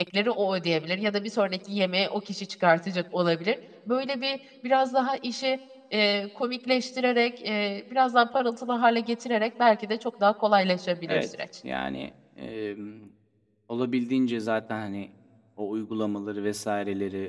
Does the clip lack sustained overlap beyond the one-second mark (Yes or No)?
Yes